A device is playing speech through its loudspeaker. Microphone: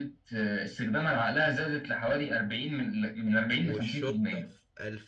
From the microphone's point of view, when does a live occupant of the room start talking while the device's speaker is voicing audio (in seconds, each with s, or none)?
3.6 s